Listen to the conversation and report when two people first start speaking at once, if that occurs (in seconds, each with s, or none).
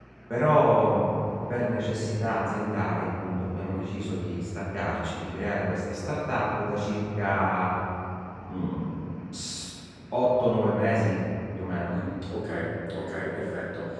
none